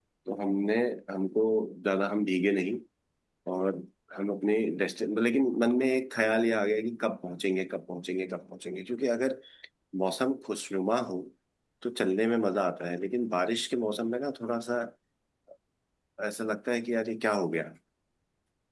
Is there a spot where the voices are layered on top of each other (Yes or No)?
No